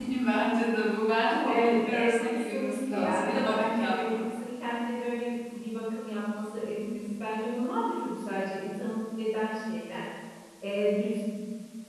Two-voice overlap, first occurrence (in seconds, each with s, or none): 1.5 s